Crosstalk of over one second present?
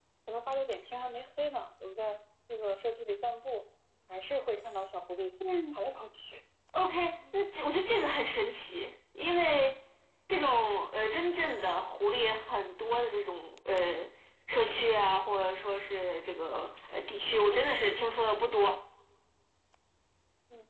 No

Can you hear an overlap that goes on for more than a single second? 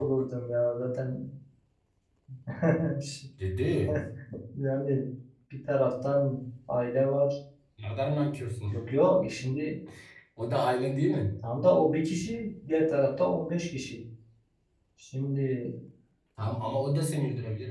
No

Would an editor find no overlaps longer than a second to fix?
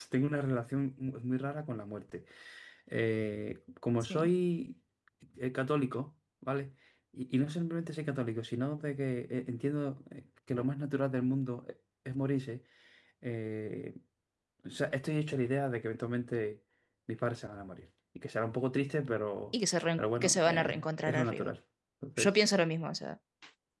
No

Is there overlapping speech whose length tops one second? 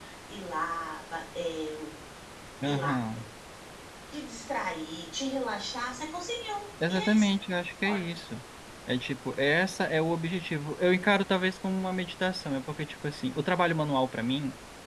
No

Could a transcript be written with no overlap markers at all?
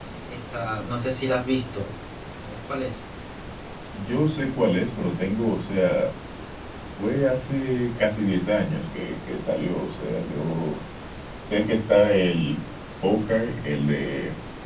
Yes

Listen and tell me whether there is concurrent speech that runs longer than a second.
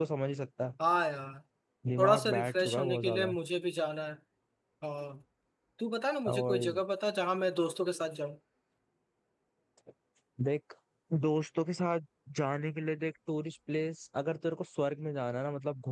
Yes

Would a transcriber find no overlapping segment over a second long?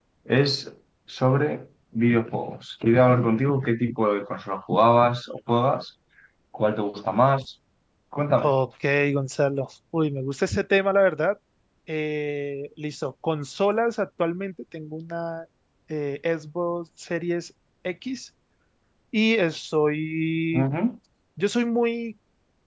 Yes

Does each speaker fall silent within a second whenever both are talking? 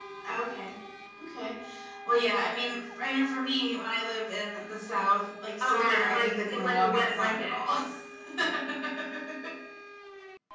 No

